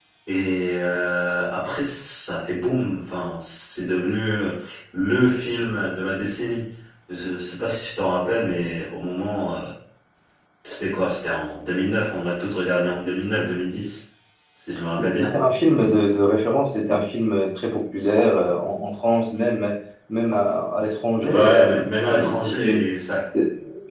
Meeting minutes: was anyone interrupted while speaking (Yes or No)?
Yes